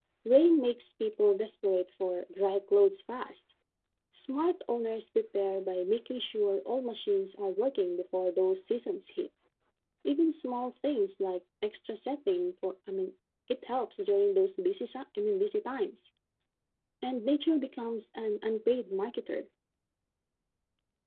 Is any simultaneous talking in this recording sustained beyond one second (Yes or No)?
No